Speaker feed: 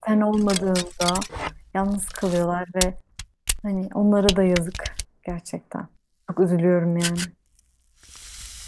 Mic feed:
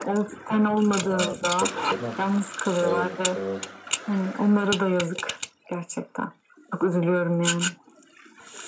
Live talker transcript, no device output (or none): ya, tabii canım. Evet evet